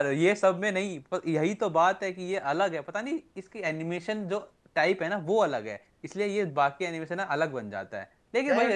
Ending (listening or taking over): listening